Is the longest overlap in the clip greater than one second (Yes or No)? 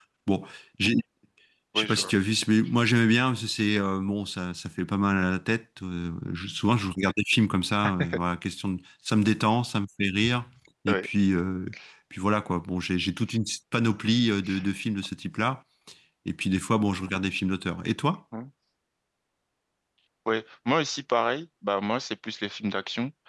No